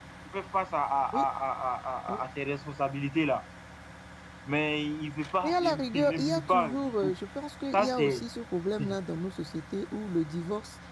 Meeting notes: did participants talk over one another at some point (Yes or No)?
Yes